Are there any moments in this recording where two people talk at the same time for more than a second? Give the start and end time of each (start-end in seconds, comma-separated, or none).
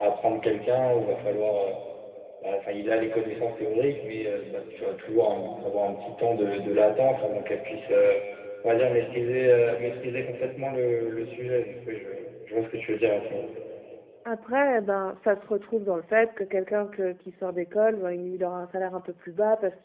none